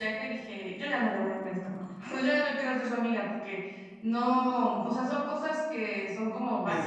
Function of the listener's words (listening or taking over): taking over